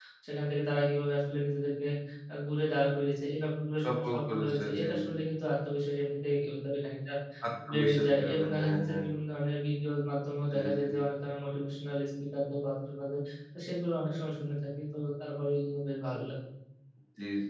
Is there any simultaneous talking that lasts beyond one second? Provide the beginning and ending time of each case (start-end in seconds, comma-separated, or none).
3.8-5.3, 7.7-9.0